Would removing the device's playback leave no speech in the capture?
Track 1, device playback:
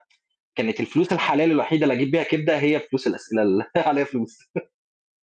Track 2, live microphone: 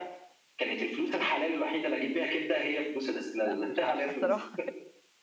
No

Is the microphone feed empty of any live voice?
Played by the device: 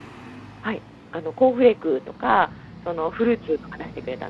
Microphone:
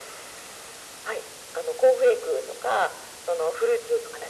Yes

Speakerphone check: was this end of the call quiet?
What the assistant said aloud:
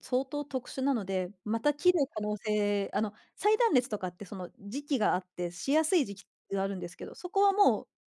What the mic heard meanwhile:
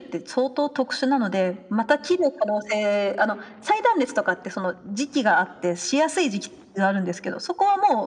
Yes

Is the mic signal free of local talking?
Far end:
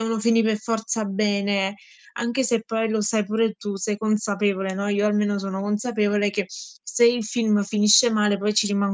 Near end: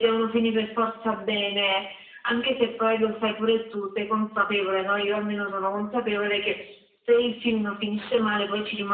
Yes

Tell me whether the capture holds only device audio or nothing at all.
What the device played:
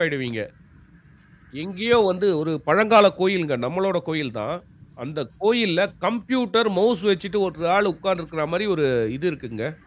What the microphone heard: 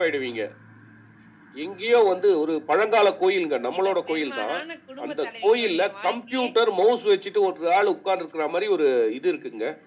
No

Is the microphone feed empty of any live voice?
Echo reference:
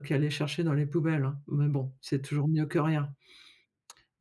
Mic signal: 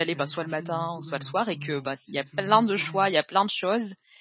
No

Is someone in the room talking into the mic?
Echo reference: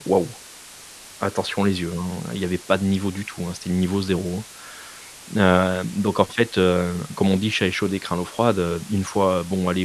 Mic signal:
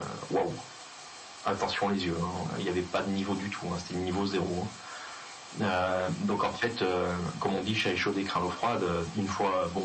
No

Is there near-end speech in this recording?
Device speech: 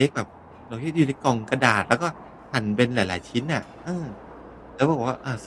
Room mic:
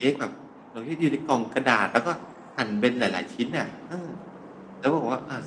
No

